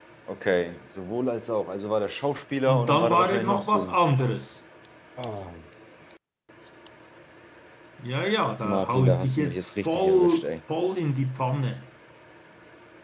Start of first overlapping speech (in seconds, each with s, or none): 2.7 s